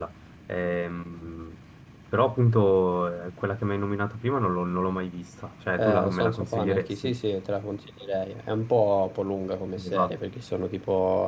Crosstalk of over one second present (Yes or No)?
Yes